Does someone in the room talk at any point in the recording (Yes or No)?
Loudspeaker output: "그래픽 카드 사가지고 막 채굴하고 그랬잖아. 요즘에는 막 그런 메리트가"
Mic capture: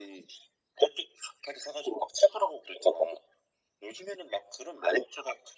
No